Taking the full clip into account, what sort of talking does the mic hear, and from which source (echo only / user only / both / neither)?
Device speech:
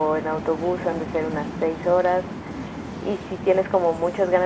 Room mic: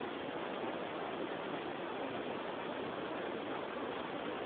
neither